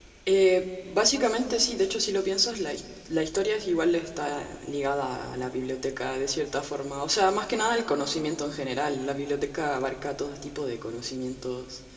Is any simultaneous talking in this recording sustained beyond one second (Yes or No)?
No